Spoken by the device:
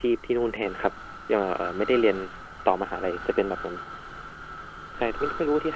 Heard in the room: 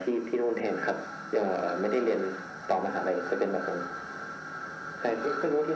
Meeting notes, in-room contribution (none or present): none